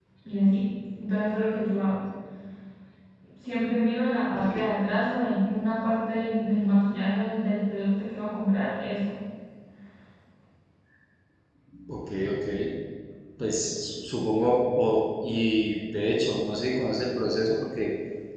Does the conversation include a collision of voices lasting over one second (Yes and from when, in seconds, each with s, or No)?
No